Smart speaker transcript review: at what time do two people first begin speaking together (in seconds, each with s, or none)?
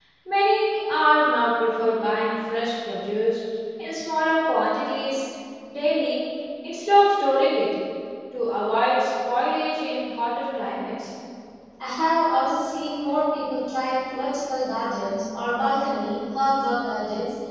none